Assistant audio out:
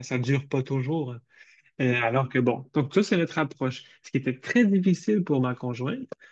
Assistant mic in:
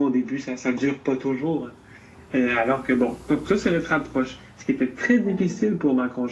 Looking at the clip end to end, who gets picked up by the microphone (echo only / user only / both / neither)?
both